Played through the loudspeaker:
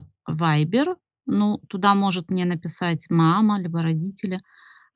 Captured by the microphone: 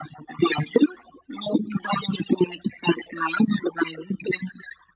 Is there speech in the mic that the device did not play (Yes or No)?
No